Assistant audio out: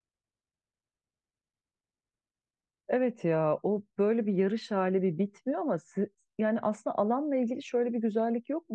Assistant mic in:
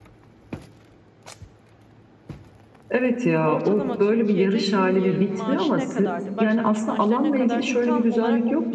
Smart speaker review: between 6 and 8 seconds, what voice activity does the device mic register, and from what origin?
both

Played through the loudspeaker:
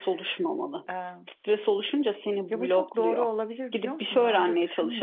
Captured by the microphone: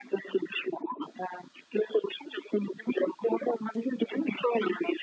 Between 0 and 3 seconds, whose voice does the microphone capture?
echo only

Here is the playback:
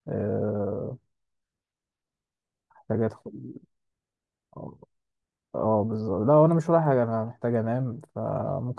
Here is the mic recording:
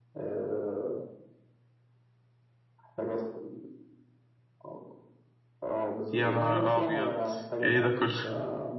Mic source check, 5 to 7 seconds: both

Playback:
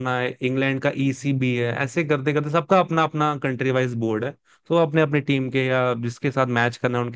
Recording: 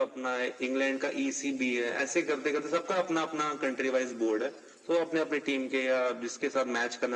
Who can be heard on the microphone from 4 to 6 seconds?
echo only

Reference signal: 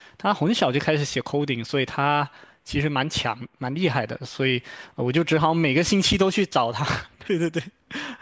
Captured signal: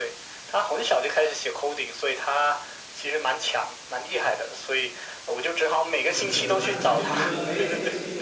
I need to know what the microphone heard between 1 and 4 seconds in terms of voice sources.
echo only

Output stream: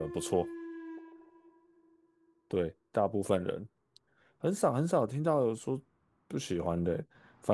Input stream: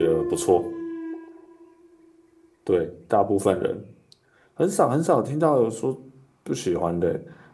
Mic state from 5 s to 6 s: echo only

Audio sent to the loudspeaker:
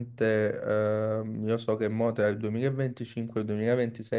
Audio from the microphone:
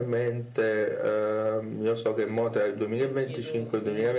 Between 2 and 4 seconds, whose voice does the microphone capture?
both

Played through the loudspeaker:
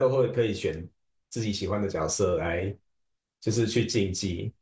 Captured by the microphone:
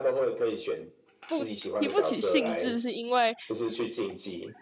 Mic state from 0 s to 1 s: echo only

